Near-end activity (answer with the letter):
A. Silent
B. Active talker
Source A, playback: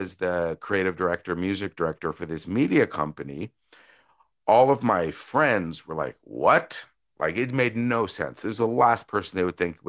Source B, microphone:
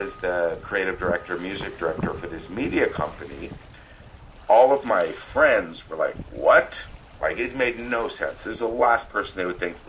A